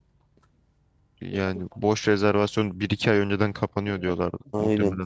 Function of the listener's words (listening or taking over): taking over